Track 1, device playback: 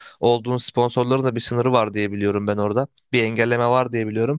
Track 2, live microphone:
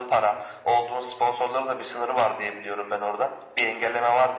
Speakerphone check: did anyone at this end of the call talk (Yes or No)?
No